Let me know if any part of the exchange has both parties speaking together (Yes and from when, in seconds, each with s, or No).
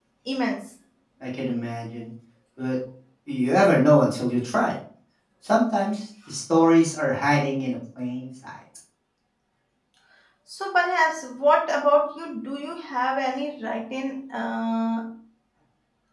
No